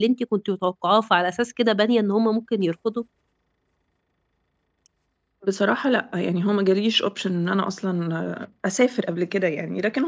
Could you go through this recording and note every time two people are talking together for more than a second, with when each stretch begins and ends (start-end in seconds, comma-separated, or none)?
none